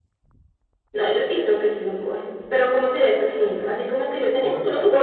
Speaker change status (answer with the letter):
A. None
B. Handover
B